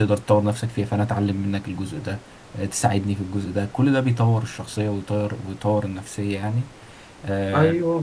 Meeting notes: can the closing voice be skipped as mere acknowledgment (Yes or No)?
No